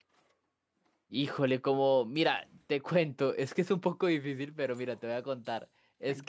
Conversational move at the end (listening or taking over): listening